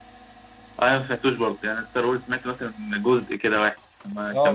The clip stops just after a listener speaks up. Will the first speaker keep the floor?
No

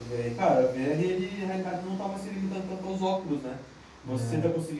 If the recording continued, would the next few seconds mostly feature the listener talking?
No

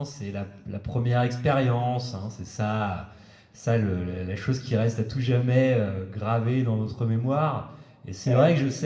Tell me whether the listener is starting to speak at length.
No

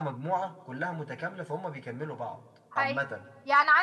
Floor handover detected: Yes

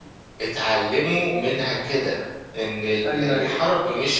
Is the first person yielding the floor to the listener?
No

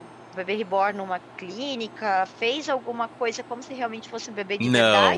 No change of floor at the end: No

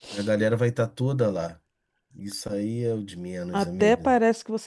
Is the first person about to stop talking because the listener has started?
Yes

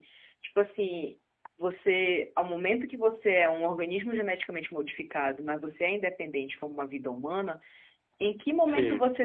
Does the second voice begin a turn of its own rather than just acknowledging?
No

